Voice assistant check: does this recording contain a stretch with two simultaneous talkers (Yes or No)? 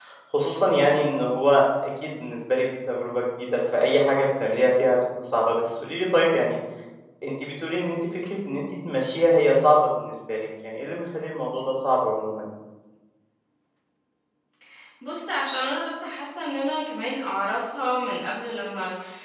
No